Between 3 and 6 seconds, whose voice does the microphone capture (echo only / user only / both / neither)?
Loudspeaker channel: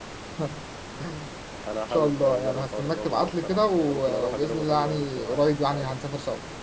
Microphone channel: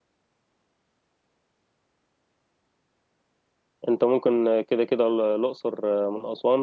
user only